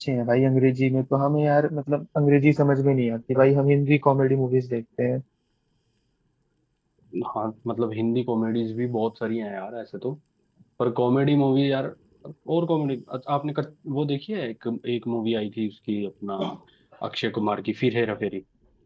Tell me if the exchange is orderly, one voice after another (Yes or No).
Yes